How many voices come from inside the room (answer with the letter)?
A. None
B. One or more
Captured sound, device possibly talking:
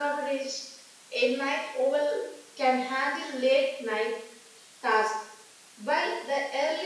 A